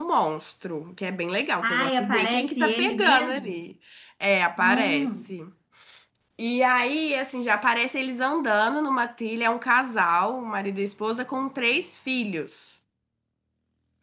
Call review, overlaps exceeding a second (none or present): present